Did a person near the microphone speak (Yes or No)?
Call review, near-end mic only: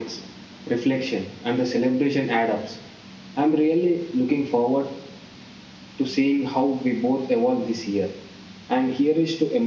No